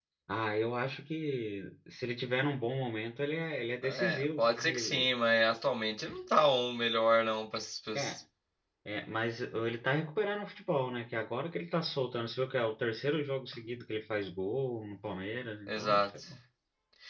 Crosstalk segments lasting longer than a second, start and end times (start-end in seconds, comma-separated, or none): 3.8-5.1